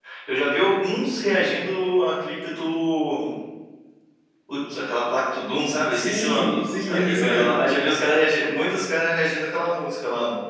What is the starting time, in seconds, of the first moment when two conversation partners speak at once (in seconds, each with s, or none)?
5.9 s